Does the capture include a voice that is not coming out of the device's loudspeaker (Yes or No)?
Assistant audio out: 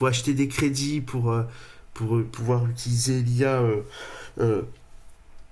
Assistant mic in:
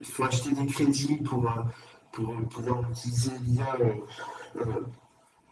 No